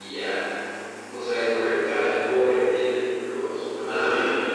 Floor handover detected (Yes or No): Yes